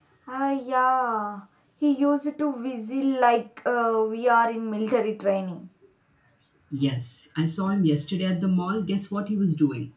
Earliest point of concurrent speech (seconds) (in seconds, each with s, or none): none